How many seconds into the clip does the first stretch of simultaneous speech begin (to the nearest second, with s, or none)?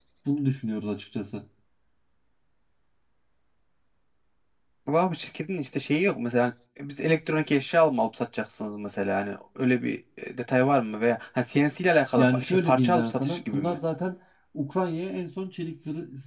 12 s